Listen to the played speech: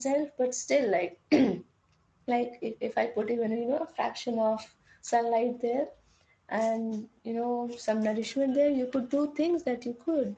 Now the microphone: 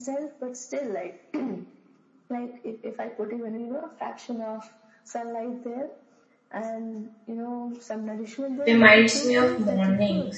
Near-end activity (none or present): present